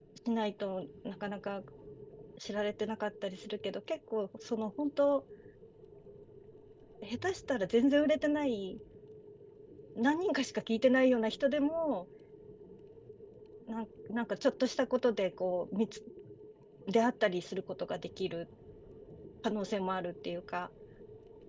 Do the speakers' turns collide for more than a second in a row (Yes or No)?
No